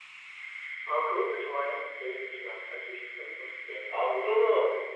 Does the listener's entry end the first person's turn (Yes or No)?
Yes